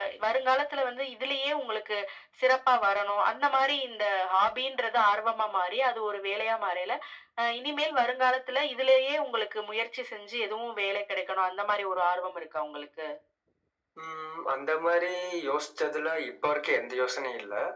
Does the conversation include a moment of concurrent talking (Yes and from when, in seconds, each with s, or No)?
No